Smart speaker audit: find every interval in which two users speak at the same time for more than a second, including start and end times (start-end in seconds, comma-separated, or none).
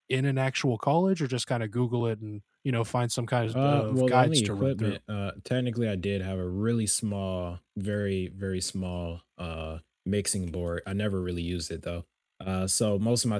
3.5-5.0